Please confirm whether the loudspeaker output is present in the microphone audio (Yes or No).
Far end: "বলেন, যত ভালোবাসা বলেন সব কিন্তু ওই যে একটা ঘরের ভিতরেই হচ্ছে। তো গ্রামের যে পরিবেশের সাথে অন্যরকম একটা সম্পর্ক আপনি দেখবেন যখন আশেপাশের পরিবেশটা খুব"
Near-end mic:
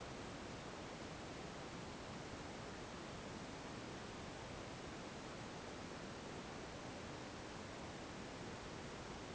No